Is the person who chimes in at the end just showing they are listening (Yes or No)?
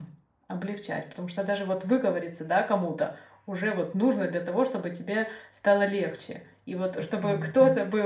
Yes